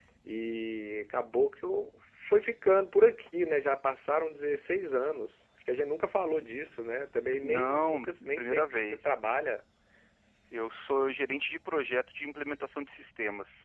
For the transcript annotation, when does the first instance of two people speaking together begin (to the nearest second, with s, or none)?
7 s